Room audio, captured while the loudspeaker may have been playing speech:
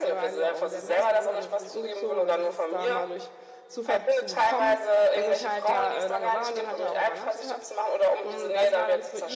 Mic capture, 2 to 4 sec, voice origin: both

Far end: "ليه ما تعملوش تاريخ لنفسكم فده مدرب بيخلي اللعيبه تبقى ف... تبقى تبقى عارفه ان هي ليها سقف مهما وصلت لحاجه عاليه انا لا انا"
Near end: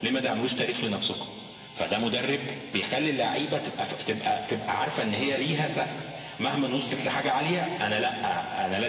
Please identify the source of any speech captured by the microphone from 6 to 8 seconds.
echo only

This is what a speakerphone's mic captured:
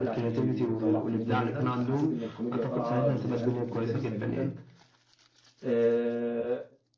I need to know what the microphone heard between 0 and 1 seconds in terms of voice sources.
both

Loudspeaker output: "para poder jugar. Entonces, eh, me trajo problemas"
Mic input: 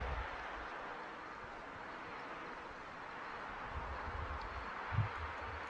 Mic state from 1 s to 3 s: neither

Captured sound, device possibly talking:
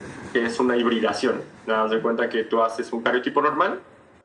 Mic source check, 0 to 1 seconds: echo only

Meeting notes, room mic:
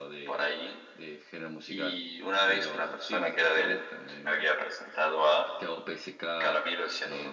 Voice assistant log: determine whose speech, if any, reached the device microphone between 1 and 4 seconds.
both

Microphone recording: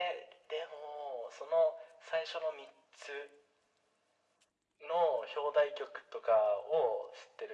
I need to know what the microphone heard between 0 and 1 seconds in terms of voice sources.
echo only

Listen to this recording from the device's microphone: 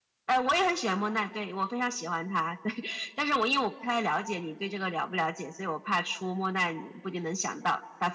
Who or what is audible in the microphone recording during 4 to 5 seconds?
echo only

